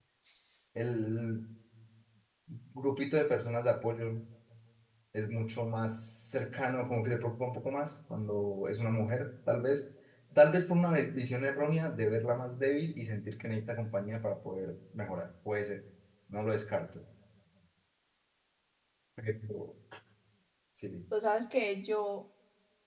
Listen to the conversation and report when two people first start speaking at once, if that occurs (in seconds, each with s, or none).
none